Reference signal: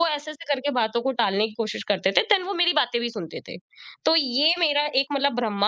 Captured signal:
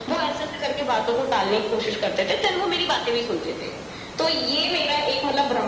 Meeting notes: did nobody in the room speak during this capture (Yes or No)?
Yes